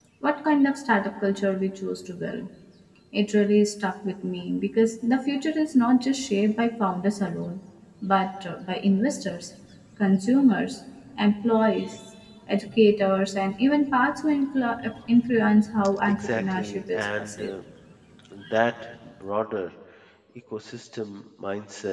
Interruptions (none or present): present